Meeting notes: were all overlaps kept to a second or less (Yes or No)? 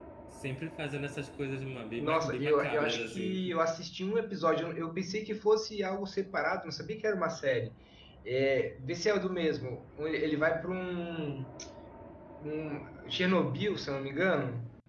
No